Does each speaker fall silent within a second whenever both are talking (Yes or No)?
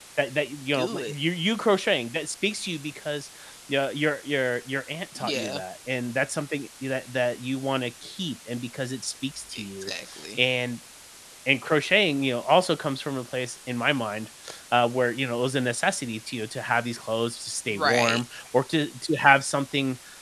Yes